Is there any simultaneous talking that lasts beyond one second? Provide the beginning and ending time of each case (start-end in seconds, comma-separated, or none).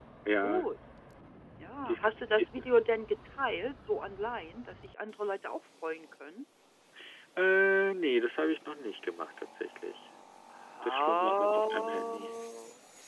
10.8-12.2